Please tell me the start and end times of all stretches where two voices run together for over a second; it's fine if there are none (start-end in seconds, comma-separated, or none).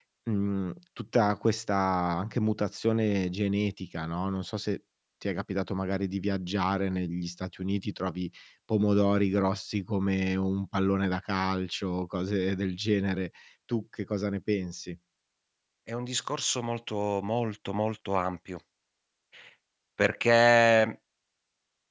none